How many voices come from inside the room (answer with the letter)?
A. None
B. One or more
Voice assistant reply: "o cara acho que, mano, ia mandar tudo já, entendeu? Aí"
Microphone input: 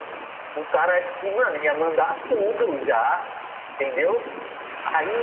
A